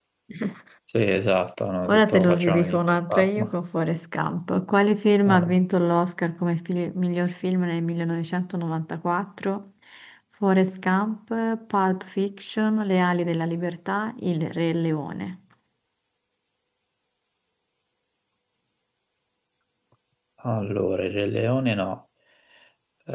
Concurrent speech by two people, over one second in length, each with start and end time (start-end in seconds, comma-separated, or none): 1.9-3.5